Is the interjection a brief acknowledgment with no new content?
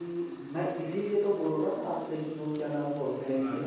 Yes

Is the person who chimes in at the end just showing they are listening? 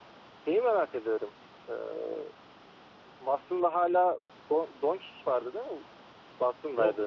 No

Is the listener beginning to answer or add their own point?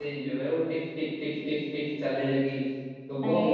No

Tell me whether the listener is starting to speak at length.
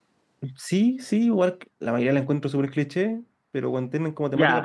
Yes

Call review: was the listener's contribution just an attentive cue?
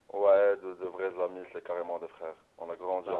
No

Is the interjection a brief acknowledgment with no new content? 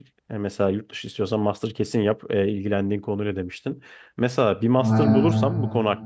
Yes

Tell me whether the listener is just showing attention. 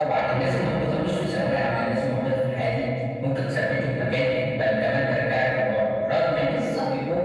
Yes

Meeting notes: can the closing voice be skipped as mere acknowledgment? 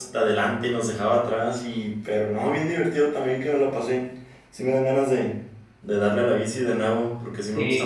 No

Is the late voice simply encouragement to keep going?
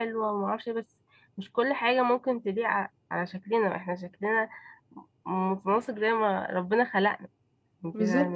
No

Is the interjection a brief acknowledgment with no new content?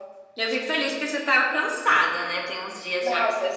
No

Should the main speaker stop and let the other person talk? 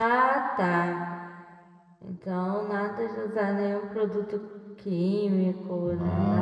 Yes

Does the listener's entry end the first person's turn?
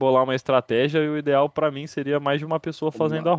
Yes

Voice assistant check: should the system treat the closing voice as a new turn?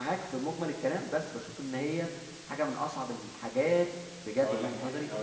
Yes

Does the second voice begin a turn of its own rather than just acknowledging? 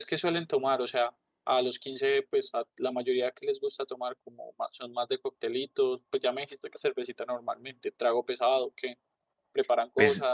Yes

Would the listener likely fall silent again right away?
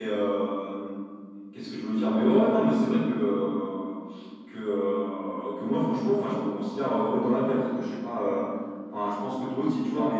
Yes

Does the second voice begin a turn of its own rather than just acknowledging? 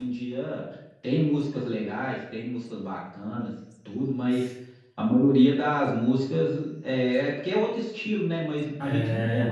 No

